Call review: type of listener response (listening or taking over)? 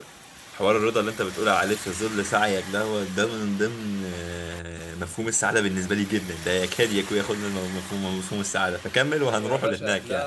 taking over